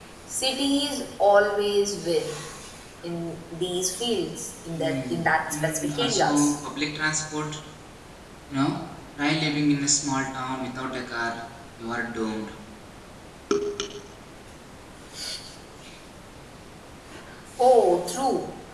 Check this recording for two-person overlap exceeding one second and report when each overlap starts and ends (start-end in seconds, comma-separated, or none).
4.8-6.5